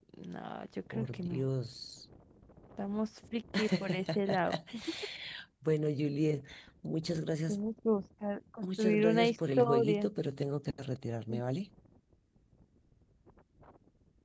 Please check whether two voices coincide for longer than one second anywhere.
Yes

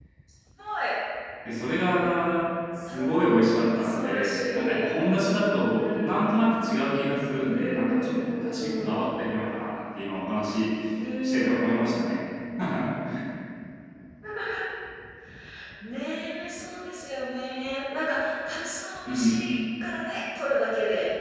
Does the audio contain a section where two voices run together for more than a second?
Yes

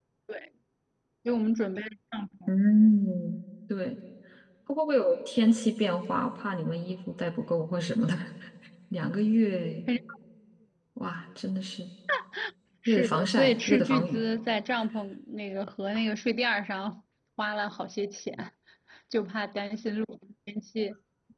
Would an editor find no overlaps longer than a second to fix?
No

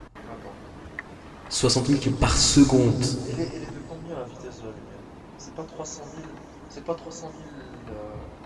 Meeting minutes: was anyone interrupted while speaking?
No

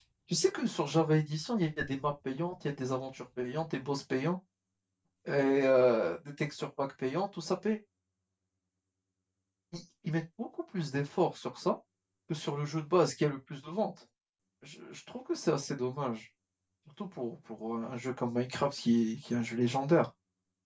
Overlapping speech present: No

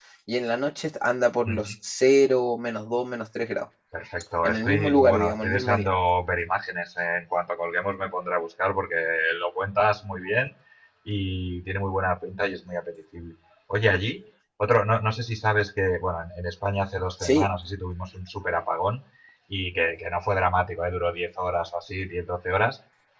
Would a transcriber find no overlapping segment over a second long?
No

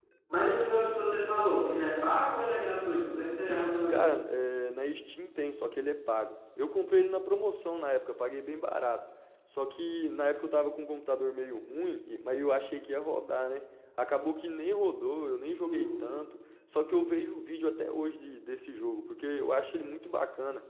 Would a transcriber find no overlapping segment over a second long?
Yes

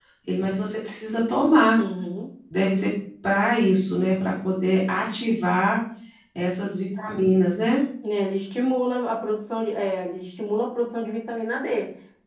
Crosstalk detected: No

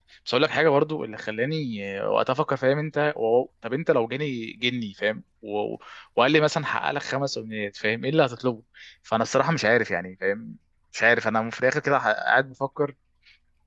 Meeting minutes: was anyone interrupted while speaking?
No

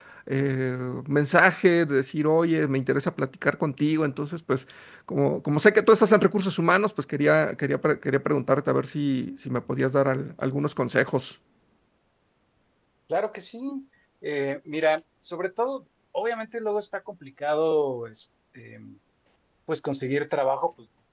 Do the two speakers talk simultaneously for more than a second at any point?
No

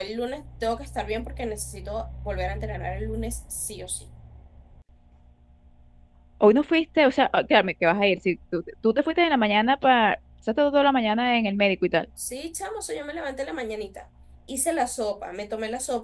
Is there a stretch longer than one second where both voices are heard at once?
No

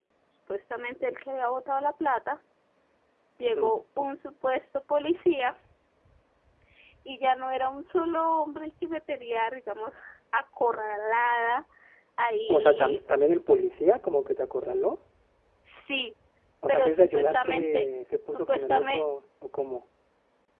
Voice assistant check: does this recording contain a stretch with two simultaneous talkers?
Yes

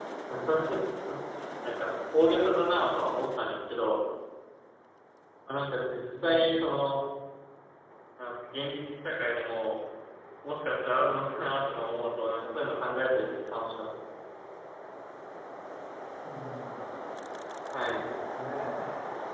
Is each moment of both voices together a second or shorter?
Yes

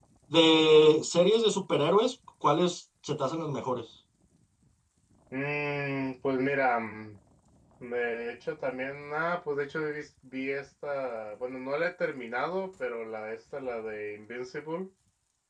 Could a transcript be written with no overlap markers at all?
Yes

